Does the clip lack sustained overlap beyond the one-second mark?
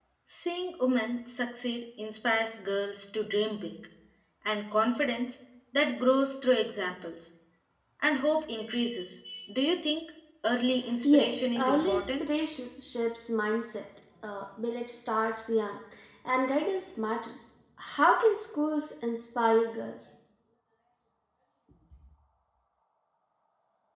No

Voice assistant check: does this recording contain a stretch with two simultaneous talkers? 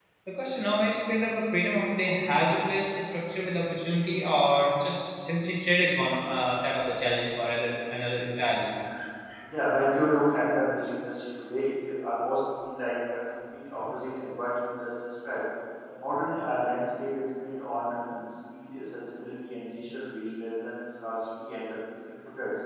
No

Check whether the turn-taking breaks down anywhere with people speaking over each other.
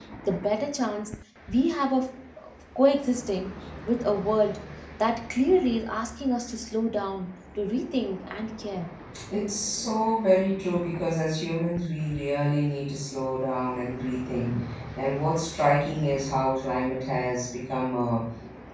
No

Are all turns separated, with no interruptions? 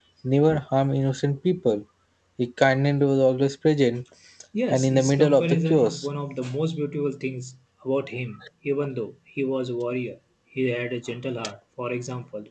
No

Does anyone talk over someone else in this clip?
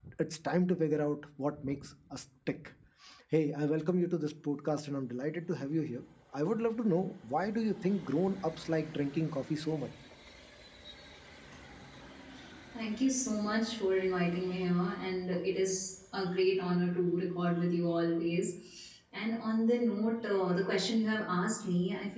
No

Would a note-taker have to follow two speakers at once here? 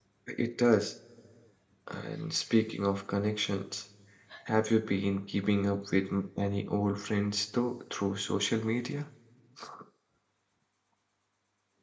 No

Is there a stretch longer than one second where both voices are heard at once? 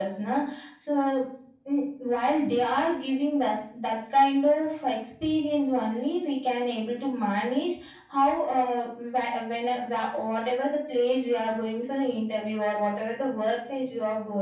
No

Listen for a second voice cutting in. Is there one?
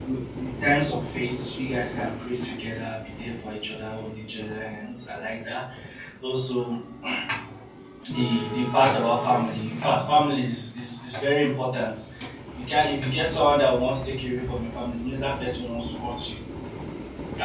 No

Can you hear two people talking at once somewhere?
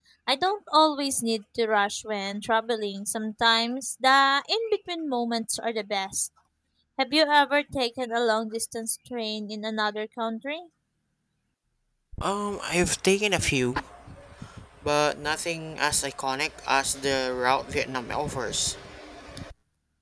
No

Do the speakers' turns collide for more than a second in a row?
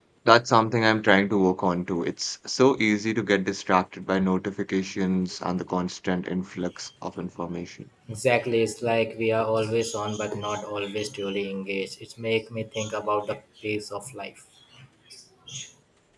No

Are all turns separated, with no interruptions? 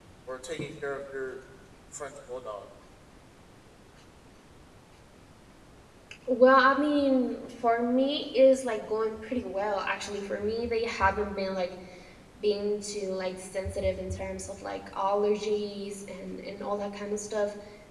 Yes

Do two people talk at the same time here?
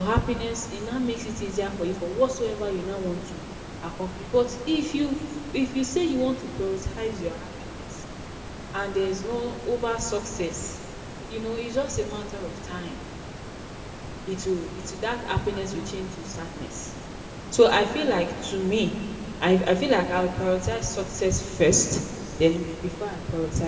No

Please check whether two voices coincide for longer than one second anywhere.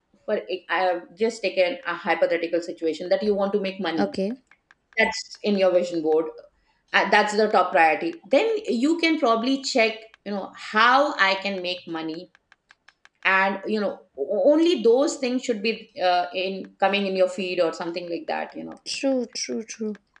No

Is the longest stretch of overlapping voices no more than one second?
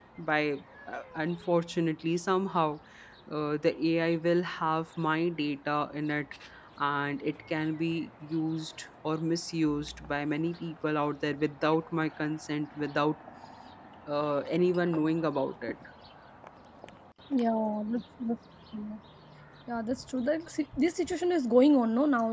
Yes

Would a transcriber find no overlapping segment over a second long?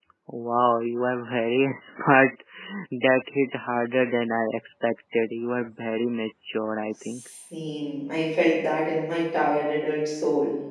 Yes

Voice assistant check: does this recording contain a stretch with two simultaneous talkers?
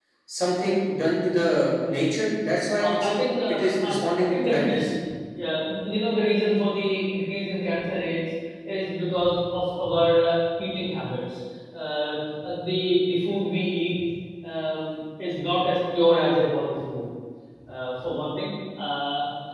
Yes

